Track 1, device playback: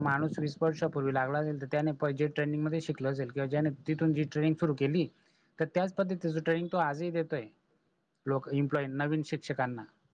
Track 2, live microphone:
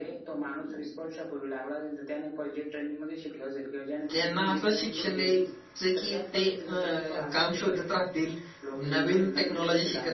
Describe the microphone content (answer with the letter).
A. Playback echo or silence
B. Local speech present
B